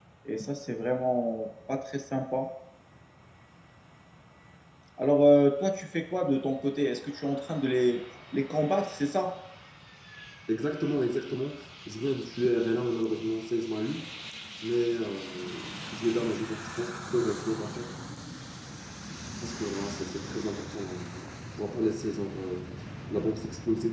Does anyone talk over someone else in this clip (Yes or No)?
No